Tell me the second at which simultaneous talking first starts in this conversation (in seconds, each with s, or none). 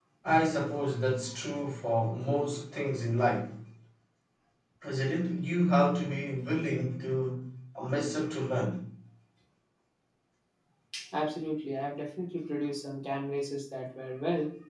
none